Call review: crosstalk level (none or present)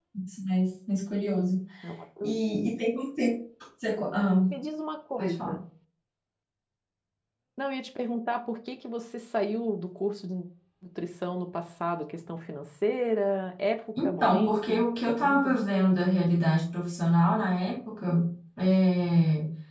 present